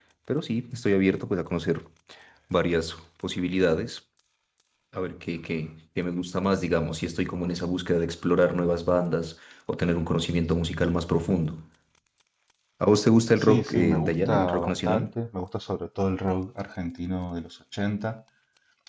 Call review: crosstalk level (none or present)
present